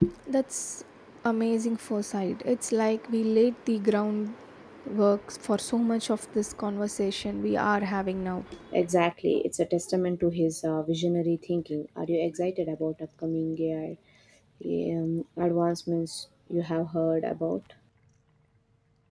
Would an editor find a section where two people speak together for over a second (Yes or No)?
No